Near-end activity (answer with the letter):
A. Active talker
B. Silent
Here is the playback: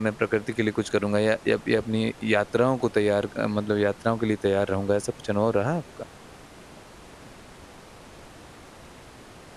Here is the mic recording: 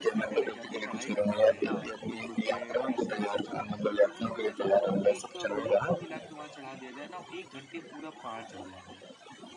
A